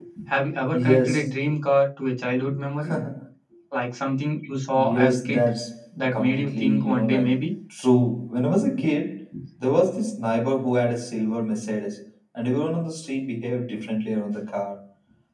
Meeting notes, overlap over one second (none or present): present